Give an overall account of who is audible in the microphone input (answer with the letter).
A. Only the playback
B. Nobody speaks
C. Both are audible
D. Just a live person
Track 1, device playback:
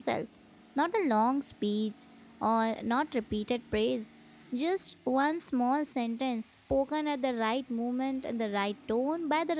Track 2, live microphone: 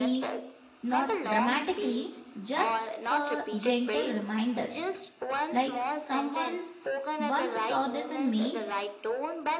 C